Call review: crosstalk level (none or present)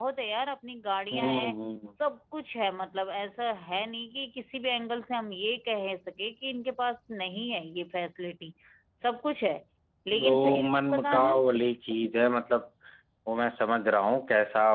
present